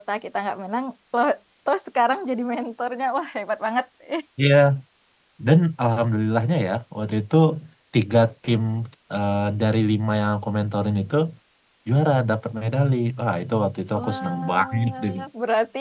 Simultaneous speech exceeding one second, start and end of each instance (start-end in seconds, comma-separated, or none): 13.9-15.2